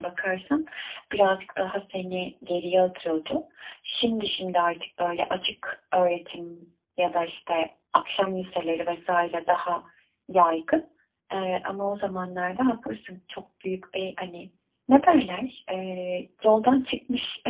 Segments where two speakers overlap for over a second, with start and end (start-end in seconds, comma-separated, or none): none